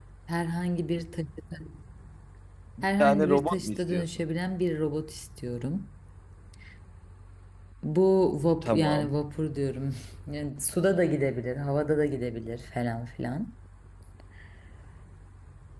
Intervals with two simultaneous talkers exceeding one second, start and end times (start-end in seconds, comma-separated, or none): 3.0-4.2